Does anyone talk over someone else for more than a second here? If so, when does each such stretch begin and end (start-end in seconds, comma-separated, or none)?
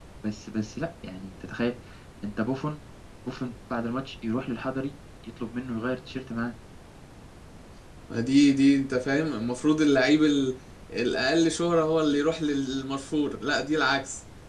none